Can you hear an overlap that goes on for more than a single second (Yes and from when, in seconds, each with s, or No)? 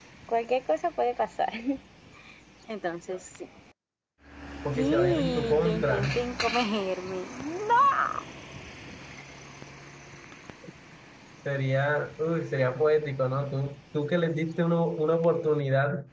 Yes, from 4.8 s